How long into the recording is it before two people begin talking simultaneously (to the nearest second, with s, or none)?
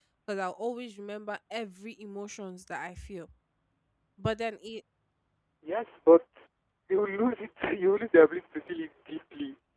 none